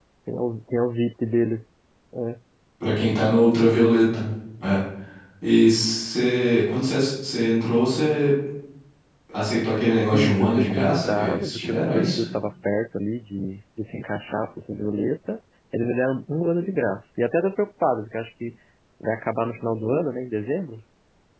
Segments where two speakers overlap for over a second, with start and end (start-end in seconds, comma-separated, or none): 10.1-12.2